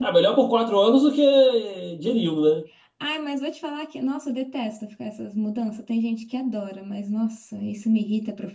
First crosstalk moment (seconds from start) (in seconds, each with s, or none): none